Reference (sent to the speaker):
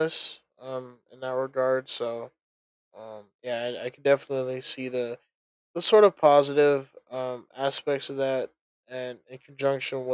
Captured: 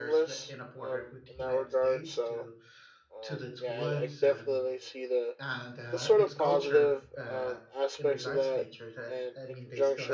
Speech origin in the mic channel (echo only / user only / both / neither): both